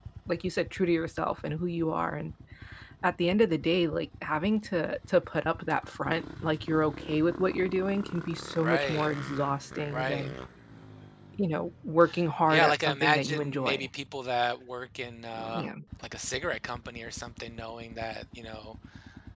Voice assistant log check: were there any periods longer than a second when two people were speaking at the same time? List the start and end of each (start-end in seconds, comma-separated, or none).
12.5-13.9